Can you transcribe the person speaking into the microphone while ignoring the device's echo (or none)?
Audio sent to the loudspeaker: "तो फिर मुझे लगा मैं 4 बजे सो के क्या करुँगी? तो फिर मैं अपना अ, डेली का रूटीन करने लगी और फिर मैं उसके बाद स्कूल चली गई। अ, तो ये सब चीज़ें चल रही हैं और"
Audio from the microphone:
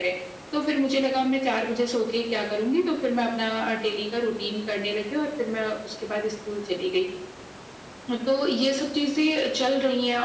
none